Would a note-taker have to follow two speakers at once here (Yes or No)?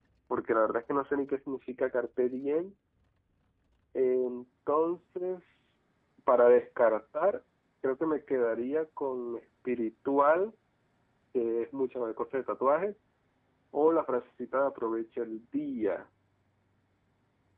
No